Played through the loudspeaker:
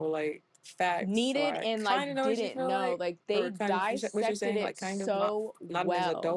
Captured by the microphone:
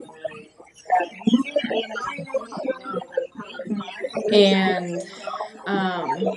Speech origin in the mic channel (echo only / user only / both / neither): both